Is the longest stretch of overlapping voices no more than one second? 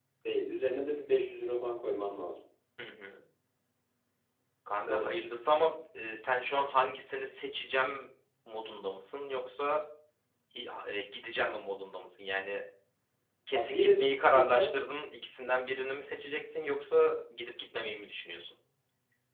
No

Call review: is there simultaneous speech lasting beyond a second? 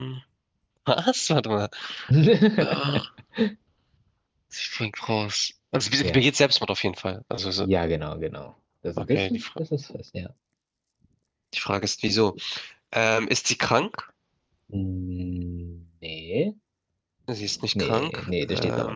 Yes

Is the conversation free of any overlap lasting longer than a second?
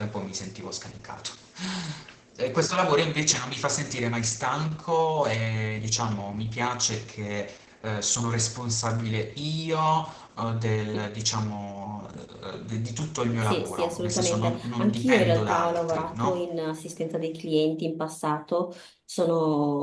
No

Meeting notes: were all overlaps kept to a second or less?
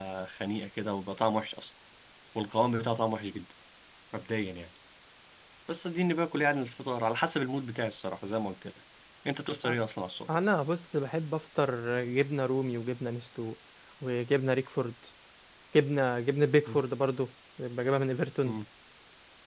Yes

